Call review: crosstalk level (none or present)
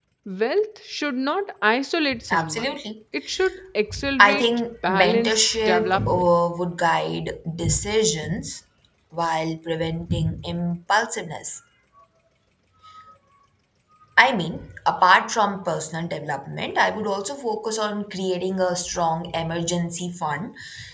present